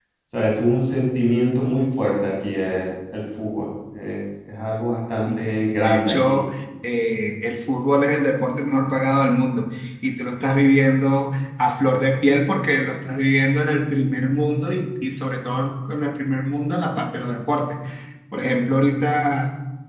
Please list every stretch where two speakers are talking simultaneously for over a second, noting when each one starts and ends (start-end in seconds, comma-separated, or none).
5.1-6.4